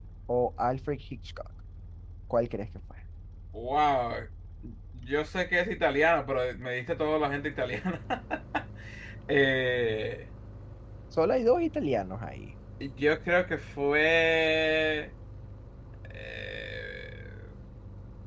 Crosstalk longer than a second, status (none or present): none